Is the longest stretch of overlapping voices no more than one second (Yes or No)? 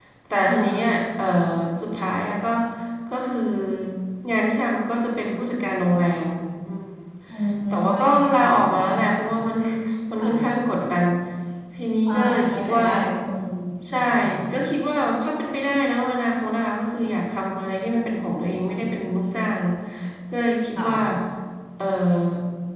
No